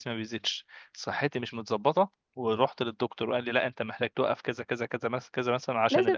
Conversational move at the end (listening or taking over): taking over